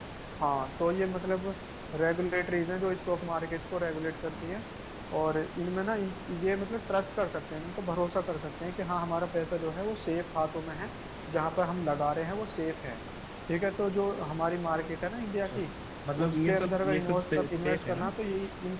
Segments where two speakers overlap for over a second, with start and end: 16.2-18.1

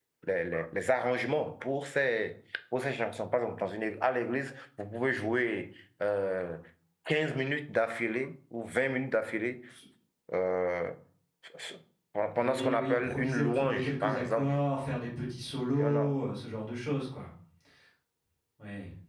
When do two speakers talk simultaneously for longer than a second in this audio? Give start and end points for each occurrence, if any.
12.4-14.6

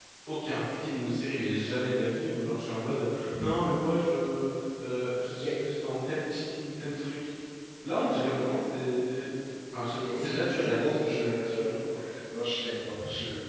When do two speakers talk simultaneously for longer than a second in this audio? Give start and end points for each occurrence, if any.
10.0-11.7

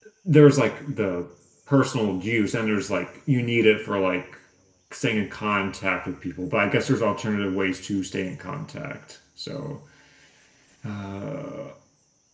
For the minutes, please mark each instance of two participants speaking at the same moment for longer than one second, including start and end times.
none

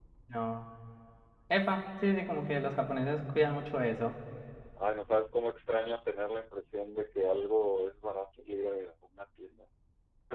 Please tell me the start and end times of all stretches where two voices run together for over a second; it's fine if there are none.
none

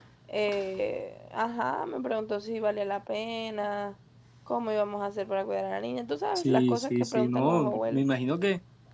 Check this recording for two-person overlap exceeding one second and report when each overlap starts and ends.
6.3-8.1

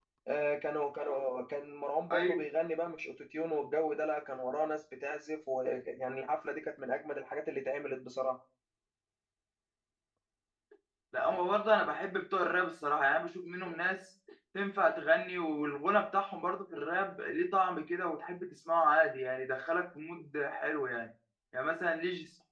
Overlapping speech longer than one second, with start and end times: none

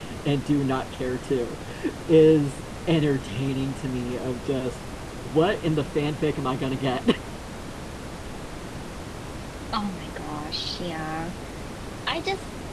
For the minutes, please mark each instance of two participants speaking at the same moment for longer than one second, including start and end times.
none

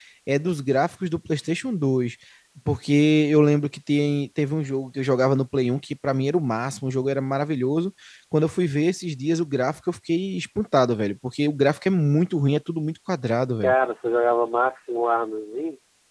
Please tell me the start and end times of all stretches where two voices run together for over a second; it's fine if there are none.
none

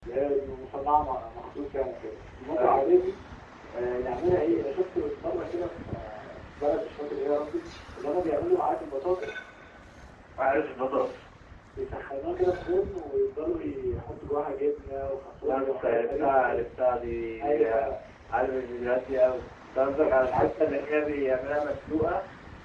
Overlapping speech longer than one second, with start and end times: 15.4-16.7

